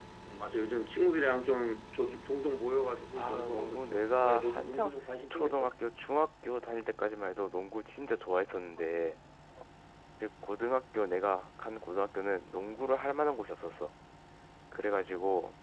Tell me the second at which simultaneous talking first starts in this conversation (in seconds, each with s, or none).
3.2 s